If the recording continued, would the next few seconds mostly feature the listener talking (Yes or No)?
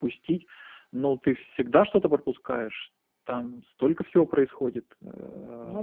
No